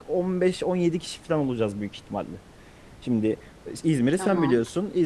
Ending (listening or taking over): listening